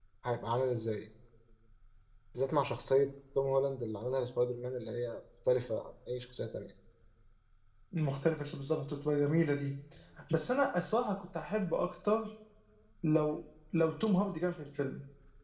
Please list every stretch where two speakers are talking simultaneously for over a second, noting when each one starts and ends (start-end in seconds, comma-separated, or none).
none